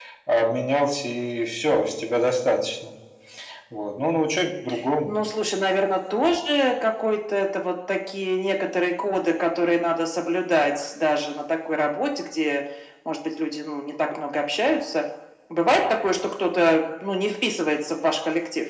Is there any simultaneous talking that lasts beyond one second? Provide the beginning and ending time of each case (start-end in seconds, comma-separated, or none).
none